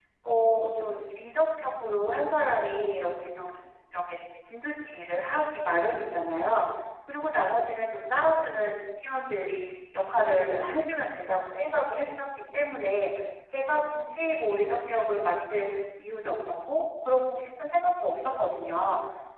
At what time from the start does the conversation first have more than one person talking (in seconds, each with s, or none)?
none